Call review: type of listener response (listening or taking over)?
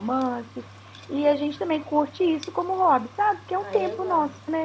taking over